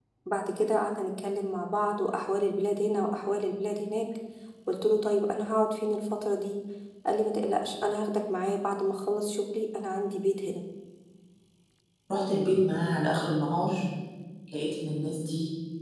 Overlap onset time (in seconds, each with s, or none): none